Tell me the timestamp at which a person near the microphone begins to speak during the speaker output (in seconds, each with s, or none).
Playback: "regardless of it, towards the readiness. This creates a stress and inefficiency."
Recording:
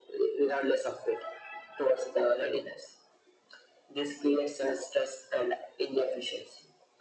none